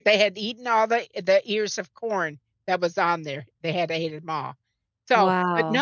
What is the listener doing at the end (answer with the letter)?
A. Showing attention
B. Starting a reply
A